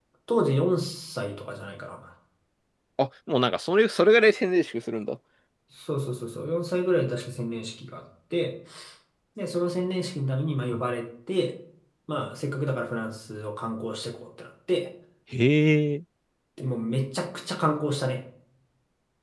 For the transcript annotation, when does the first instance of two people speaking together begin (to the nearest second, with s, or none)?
none